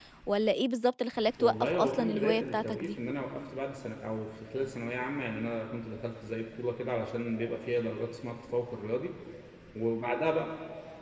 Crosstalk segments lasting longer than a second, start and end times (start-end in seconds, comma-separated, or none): 1.4-3.0